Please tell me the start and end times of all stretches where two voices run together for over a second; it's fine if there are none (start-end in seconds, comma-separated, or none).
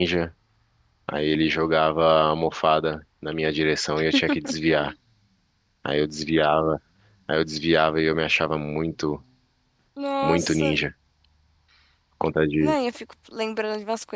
none